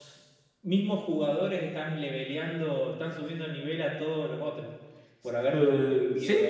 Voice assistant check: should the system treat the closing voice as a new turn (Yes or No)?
Yes